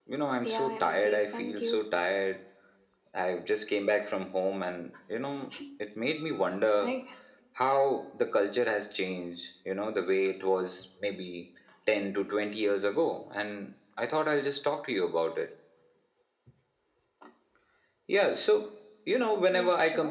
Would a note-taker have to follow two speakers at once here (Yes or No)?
Yes